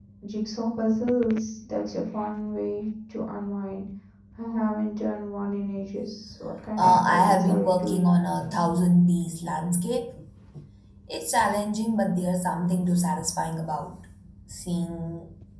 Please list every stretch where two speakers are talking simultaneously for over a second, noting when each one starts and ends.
6.8-8.1

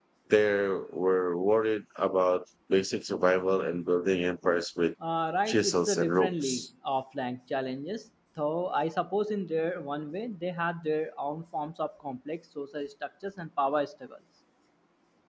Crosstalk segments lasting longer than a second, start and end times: 5.5-6.7

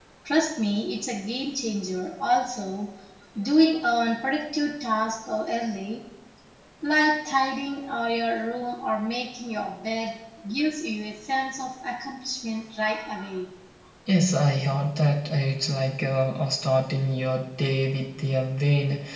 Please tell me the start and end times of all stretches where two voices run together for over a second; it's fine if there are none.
none

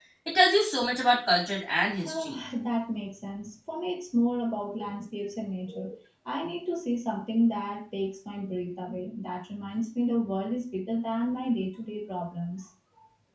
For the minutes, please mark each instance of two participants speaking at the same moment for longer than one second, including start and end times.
none

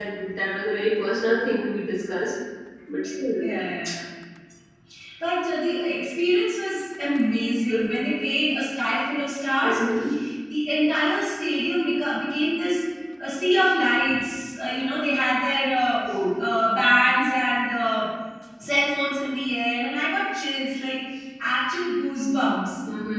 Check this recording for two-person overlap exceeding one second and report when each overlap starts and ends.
none

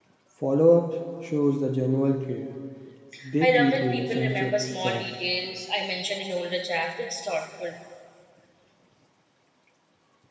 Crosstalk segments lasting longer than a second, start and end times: 3.4-5.1

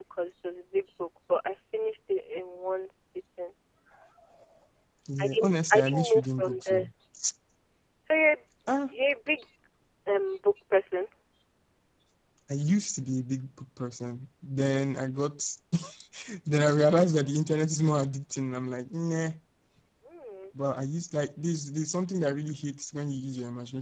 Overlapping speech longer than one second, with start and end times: 5.2-6.9

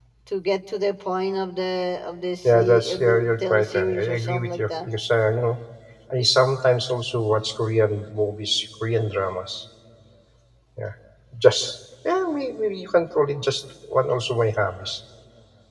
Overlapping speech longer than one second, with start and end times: 2.5-4.9

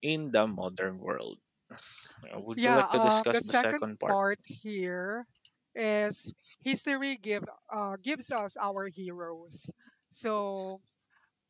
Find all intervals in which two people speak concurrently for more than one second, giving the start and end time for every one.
2.6-4.1

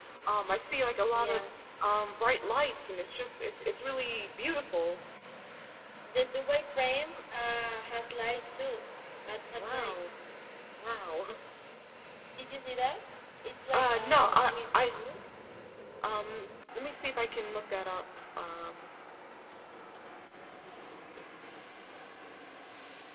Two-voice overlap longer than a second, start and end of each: 13.7-15.0

